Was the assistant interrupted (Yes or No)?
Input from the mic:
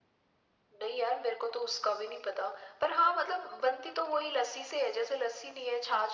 No